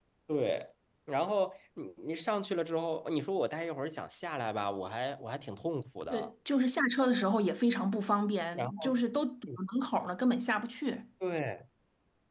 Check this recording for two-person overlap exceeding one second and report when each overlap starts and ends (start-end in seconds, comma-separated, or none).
none